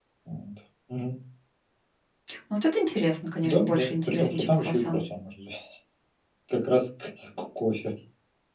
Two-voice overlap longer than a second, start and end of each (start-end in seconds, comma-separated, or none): 3.4-5.0